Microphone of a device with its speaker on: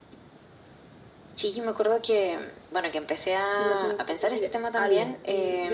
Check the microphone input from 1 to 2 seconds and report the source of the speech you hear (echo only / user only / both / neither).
echo only